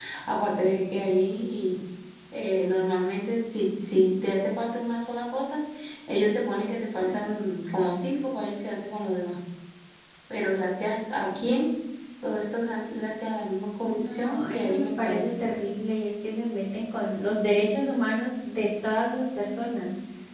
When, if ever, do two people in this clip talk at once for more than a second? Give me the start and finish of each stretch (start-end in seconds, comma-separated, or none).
13.8-15.3